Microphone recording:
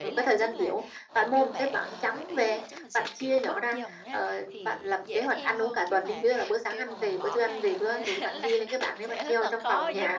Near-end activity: present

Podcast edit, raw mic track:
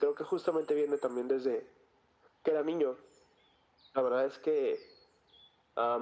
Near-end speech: none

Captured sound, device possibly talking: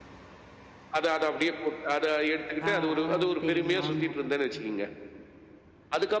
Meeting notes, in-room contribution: present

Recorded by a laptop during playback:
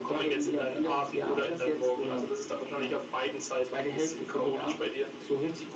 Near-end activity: none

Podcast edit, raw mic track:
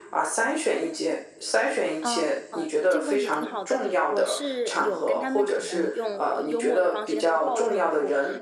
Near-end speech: present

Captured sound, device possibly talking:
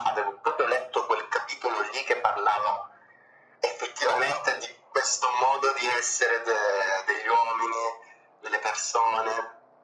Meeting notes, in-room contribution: none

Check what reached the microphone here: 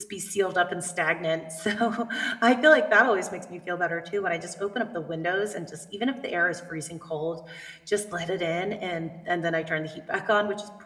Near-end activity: present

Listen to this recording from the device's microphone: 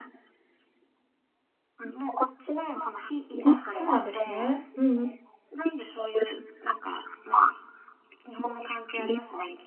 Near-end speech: present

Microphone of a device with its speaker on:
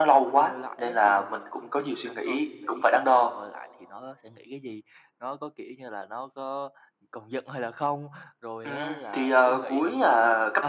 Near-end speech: present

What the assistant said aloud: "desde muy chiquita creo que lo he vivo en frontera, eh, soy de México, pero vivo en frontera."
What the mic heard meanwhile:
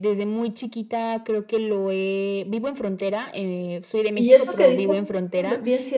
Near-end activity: present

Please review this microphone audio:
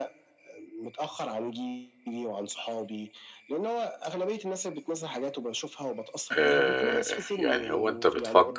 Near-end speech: present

